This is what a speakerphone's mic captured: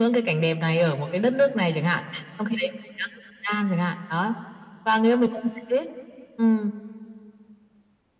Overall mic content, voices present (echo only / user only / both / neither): echo only